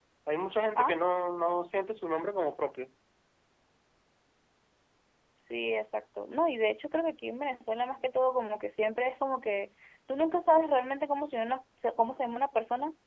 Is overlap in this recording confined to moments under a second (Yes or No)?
Yes